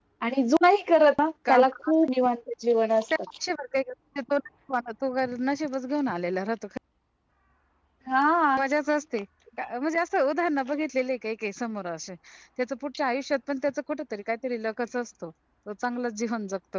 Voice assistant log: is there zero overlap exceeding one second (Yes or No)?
Yes